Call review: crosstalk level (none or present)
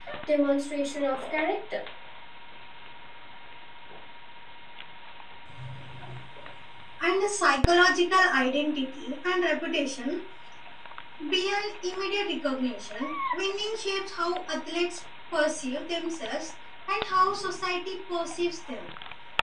none